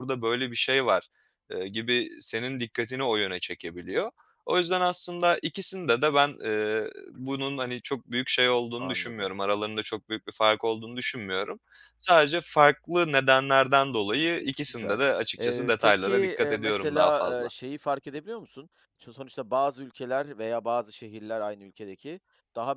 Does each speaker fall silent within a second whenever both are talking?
No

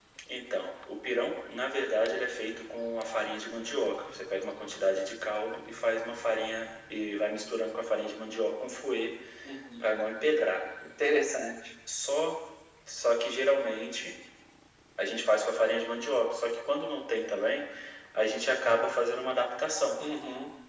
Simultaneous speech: No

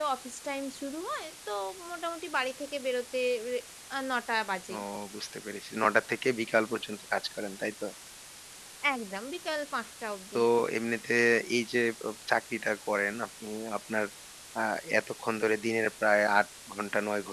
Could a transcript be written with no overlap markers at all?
Yes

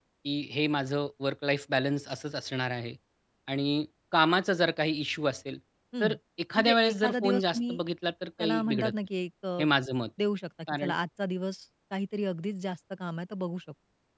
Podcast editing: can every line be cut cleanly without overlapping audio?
No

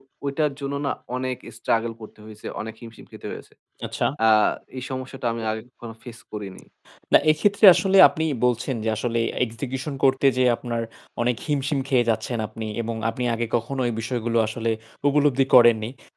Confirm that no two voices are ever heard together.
Yes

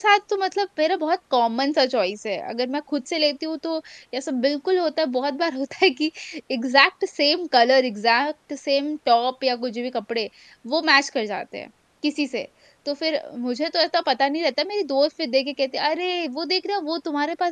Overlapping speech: No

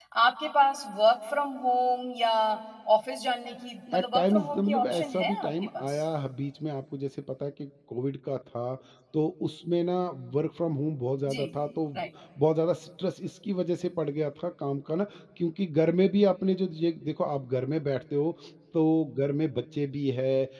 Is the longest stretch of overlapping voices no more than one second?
No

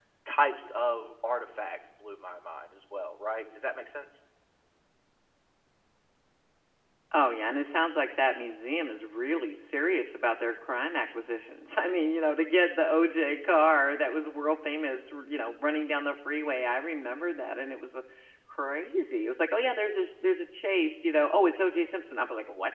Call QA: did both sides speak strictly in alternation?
Yes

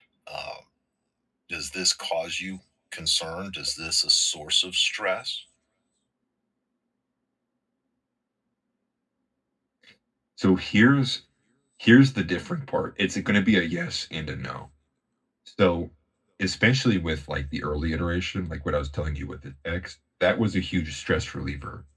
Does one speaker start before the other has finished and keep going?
No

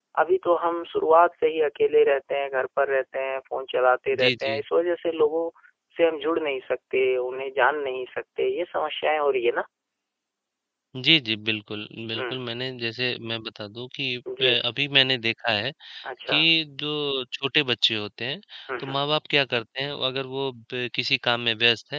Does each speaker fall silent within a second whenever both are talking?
Yes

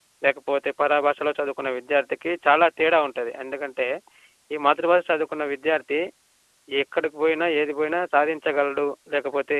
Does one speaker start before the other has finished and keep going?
No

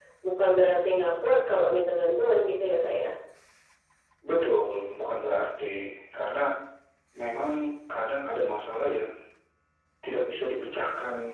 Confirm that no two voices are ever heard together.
Yes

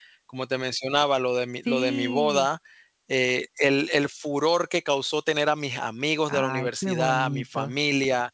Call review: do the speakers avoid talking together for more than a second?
No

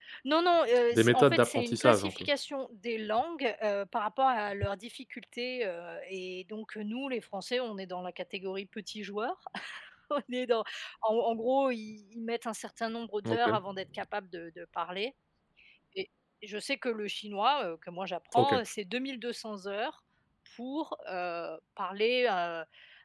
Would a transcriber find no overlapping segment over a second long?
No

